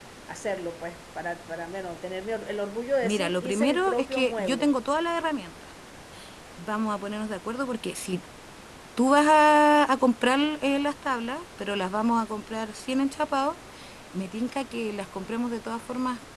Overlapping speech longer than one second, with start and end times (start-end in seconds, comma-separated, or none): 3.0-4.7